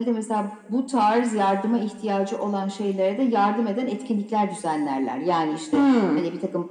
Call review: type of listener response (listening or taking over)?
listening